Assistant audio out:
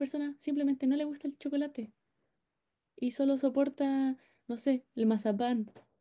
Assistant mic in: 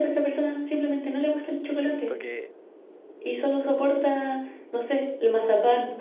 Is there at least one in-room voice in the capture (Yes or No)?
Yes